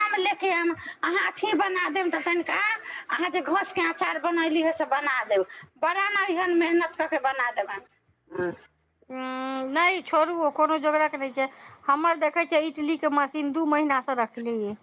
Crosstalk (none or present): none